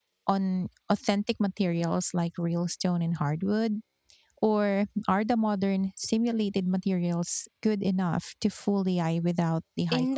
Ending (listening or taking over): taking over